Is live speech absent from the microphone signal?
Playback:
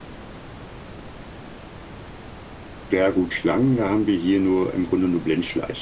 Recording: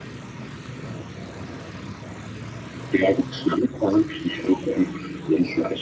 Yes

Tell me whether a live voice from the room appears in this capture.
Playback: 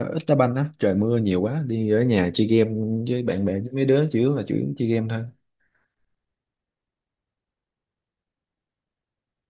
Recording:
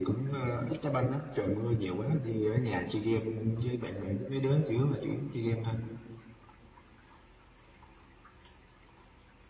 No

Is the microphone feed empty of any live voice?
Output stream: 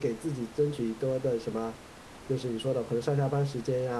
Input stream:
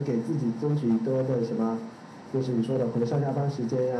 Yes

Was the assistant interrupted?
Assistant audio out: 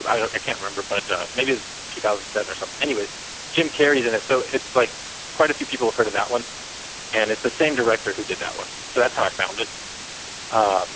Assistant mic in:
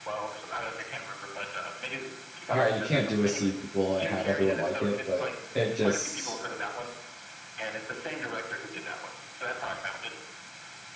Yes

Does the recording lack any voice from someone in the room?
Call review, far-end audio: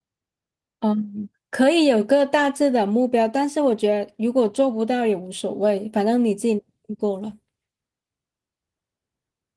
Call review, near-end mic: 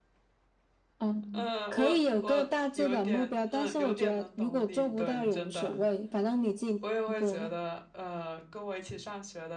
No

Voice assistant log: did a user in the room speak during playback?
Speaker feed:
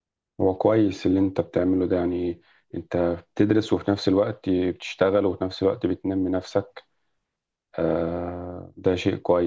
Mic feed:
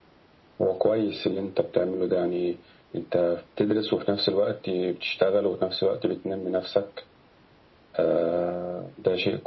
No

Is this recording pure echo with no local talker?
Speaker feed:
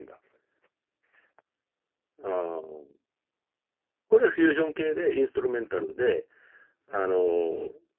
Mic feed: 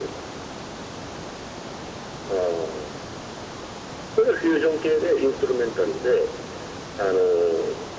Yes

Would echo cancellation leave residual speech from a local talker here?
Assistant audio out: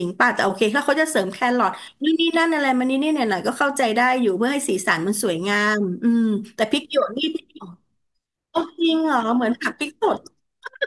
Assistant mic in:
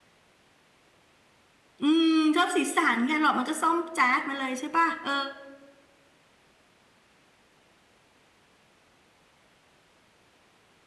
Yes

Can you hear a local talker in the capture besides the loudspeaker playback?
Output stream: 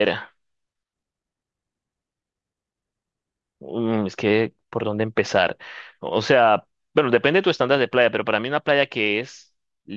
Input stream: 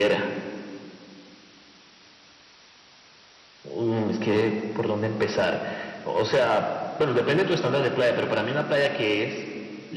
No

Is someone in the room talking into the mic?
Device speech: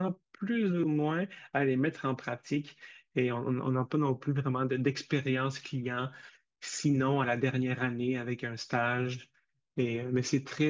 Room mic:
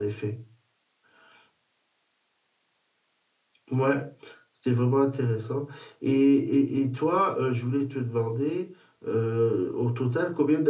Yes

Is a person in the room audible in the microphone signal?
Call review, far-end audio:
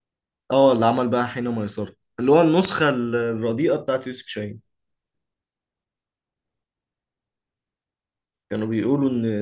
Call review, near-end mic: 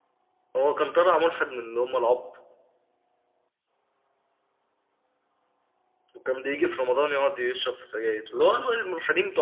Yes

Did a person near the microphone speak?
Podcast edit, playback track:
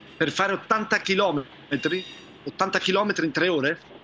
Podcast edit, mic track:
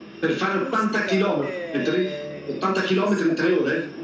Yes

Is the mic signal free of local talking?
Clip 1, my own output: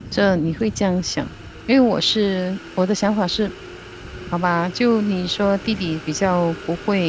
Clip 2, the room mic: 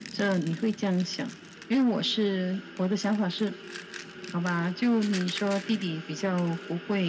Yes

